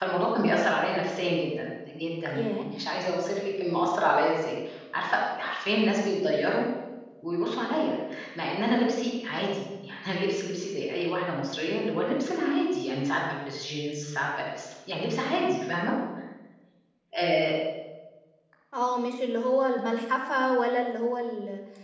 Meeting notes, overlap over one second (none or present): none